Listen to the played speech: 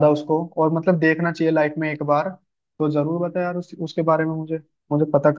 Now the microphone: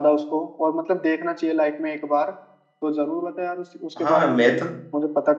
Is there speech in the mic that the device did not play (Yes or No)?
Yes